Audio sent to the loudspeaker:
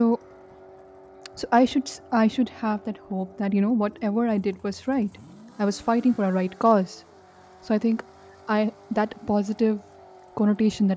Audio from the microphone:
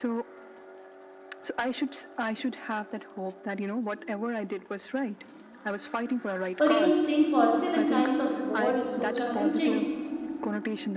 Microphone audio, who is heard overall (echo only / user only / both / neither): both